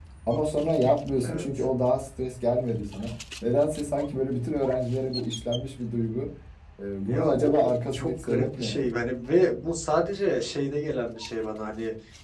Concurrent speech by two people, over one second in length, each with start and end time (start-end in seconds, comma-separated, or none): 7.1-8.9